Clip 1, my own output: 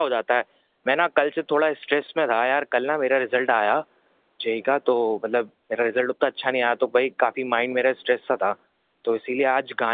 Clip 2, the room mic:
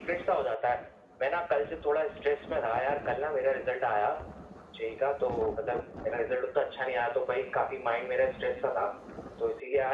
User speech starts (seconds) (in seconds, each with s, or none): none